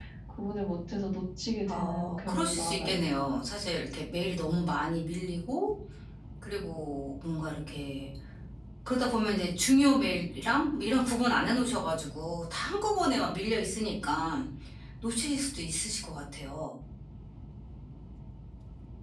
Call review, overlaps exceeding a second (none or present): present